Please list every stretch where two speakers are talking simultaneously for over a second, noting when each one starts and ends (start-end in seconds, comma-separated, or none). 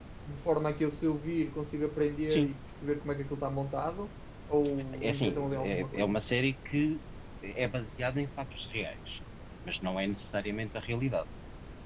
4.9-6.2